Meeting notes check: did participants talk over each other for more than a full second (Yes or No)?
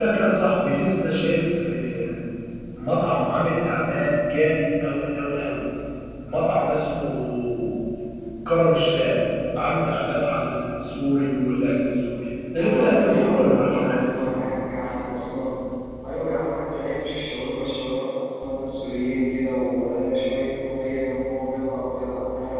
Yes